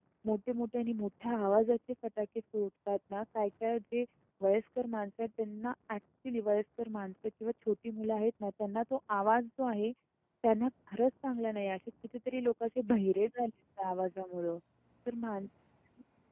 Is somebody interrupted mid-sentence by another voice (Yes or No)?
No